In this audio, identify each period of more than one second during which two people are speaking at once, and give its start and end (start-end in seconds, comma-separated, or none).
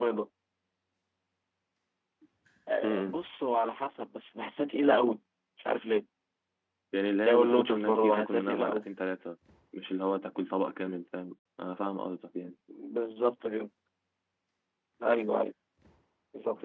7.3-8.8